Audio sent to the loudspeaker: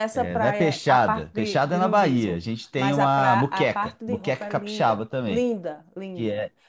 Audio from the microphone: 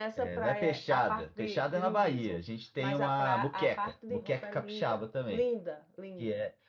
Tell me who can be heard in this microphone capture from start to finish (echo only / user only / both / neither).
echo only